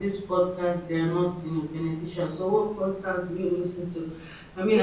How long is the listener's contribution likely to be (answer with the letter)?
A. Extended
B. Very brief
B